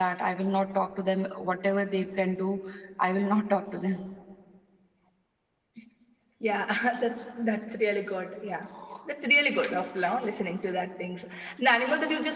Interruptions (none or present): none